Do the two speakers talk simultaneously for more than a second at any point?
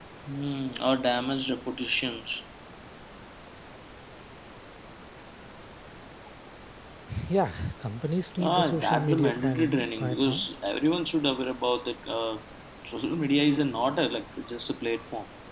Yes, from 8.4 s

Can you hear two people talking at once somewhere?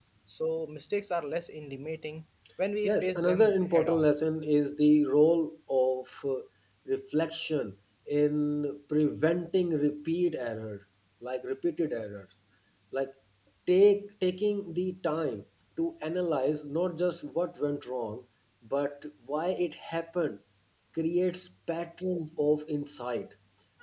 Yes, from 2.8 s

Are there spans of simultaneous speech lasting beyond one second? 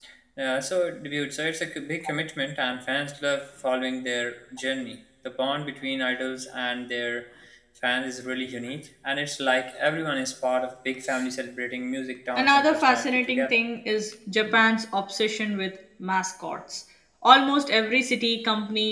Yes, from 12.4 s

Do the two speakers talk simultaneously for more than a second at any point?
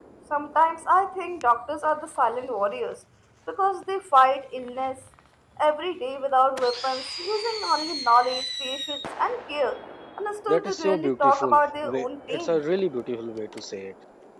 Yes, from 10.5 s

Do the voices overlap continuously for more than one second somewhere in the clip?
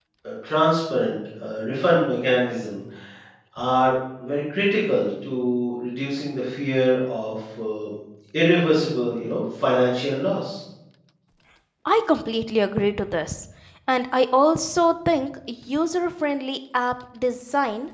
No

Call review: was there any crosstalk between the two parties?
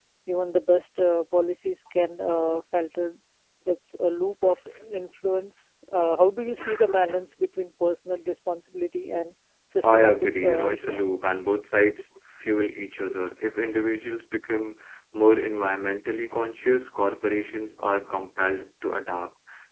Yes, from 9.8 s

